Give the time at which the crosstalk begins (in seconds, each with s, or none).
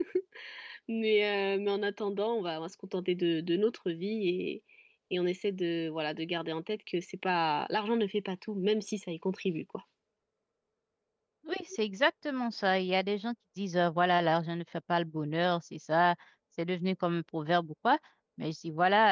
none